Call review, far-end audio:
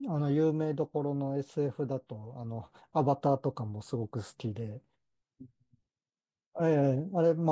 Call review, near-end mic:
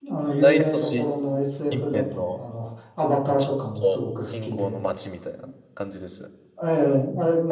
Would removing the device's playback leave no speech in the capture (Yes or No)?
No